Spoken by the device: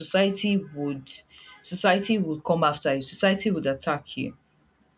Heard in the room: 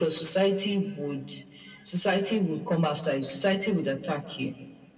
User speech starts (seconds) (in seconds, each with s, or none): none